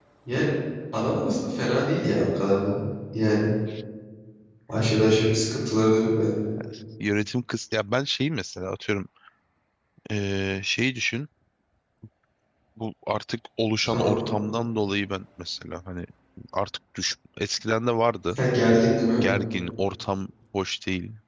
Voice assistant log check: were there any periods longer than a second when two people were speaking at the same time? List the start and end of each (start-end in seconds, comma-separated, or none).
none